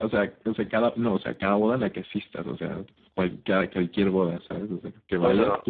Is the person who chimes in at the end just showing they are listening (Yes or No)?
No